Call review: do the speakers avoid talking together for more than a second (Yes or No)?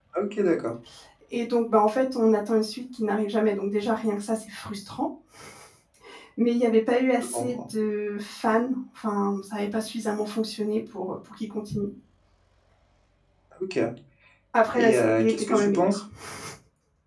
No